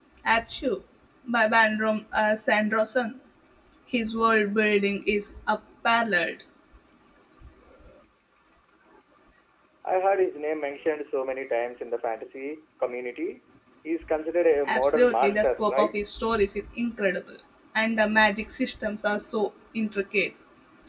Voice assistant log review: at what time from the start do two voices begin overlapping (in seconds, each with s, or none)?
14.7 s